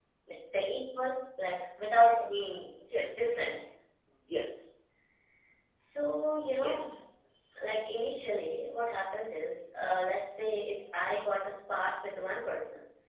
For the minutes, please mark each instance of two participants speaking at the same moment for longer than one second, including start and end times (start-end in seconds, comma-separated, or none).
none